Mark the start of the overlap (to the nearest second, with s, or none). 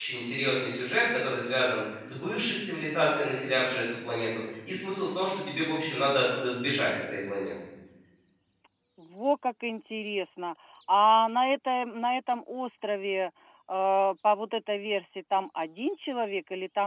none